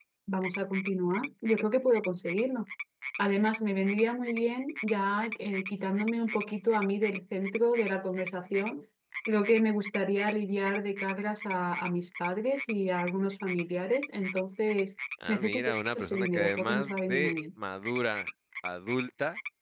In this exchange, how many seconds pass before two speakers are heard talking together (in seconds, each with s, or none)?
15.2 s